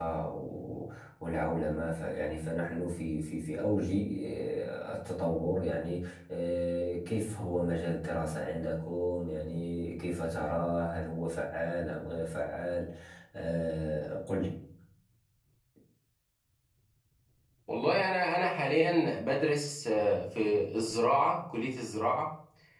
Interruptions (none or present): none